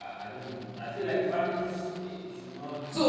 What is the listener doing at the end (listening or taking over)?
taking over